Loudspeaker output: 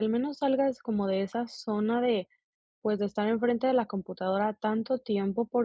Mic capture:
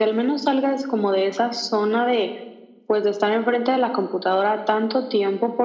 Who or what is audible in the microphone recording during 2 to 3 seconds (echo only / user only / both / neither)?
echo only